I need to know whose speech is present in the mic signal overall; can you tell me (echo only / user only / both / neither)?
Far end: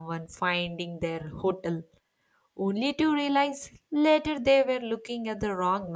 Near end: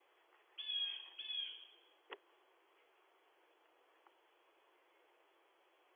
neither